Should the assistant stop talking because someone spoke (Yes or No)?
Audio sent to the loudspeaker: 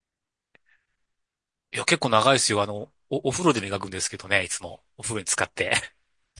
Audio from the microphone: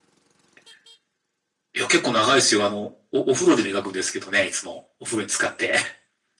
No